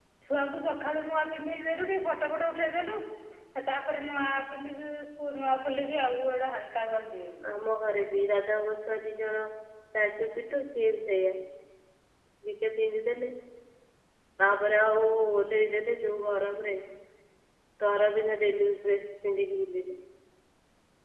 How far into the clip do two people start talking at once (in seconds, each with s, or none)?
none